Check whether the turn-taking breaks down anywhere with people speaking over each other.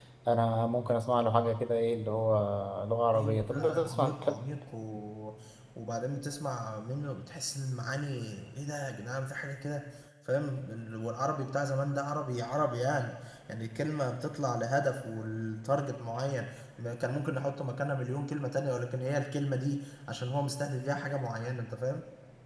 Yes, from 3.1 s

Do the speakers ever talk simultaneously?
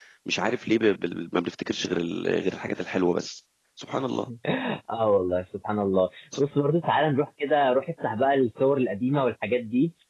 No

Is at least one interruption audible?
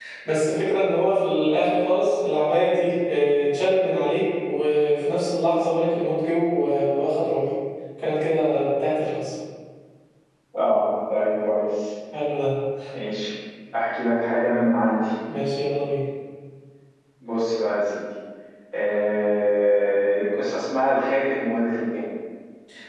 No

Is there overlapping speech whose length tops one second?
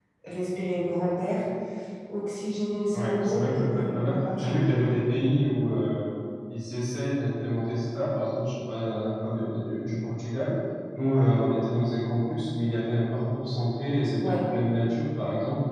Yes, from 2.9 s

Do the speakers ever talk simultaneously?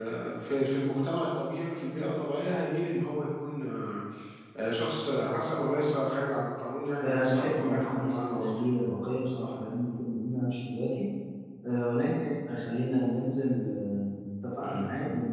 Yes, from 7.0 s

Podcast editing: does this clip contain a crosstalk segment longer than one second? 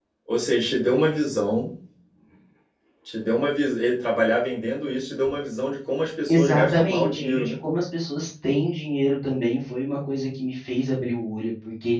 Yes, from 6.3 s

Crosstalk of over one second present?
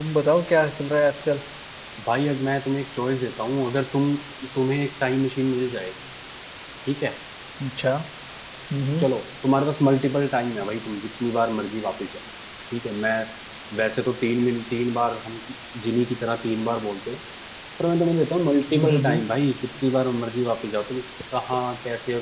No

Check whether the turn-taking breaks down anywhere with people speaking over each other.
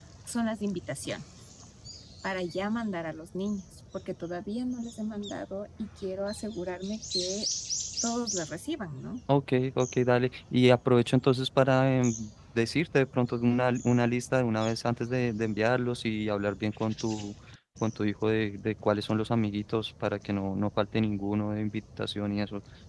No

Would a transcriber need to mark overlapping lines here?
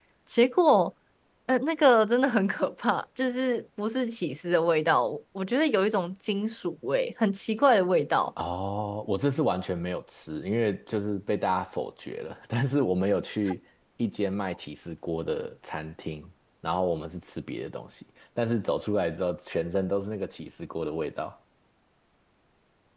No

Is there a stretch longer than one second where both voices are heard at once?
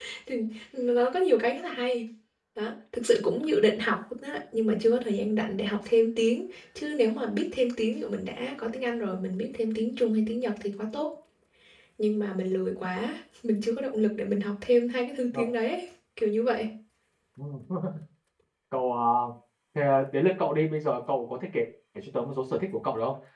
No

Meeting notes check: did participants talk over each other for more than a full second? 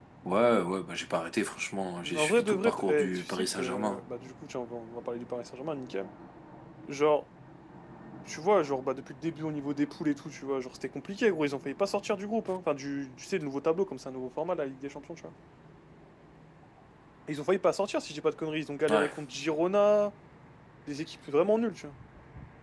Yes, from 2.1 s

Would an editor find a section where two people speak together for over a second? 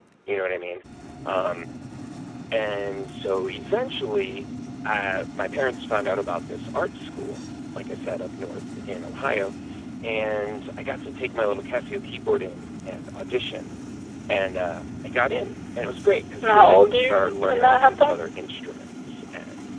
Yes, from 16.4 s

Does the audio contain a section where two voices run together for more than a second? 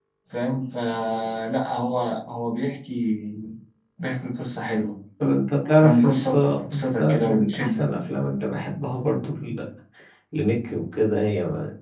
Yes, from 5.8 s

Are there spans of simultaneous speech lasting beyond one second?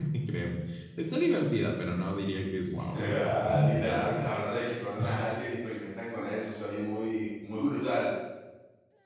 Yes, from 2.9 s

